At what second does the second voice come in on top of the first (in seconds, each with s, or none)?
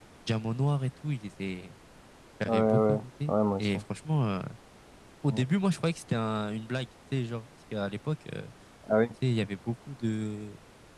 2.5 s